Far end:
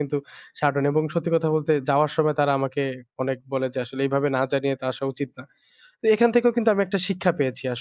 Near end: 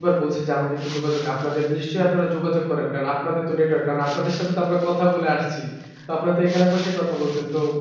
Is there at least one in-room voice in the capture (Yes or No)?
Yes